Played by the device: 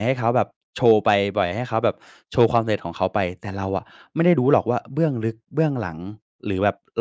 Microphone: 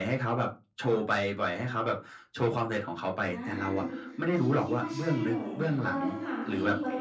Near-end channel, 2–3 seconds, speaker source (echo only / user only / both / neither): echo only